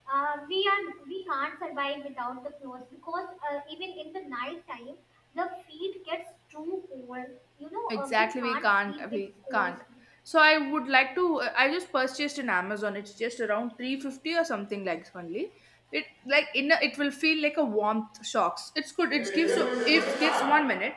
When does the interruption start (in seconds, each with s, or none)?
7.9 s